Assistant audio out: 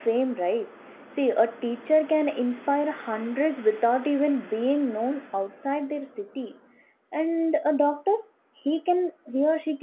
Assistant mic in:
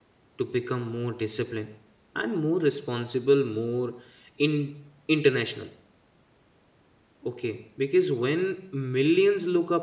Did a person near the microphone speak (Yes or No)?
Yes